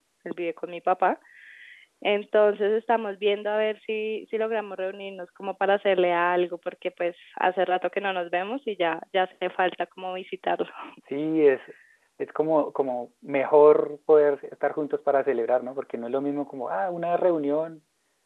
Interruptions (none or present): none